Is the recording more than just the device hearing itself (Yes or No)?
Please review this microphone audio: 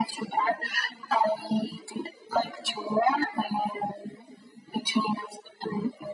No